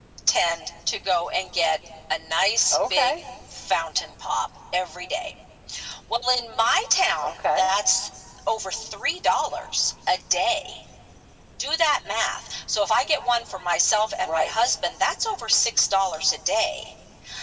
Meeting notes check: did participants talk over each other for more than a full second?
No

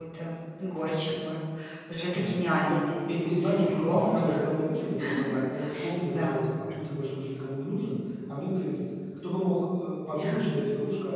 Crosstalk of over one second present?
Yes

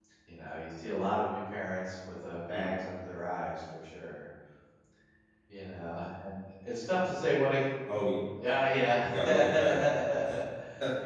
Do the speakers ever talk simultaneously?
Yes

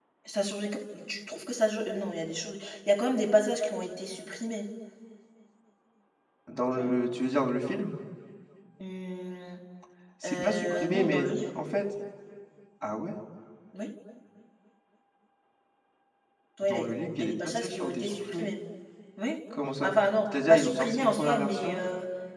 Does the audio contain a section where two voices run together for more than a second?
Yes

